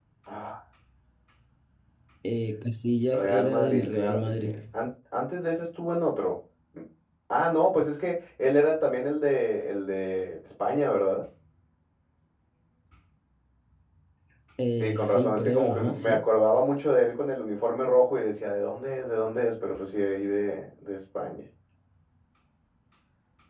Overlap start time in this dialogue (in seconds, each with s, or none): 3.1 s